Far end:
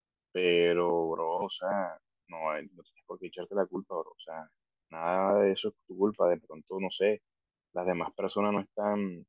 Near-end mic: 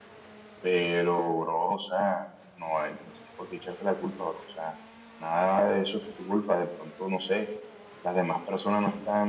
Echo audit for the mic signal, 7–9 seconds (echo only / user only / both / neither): echo only